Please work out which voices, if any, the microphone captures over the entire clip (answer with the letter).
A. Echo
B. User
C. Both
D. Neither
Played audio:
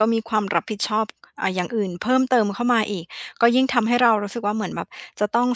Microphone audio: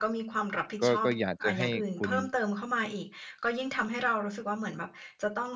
C